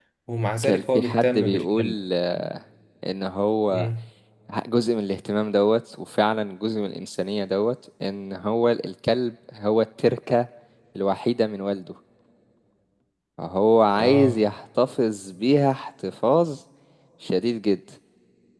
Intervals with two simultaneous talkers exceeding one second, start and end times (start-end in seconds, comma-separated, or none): 0.6-1.9